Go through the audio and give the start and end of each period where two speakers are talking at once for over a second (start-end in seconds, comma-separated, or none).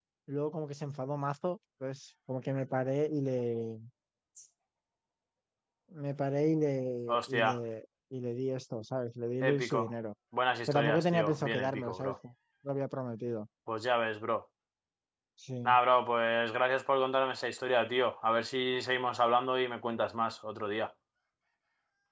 10.7-12.1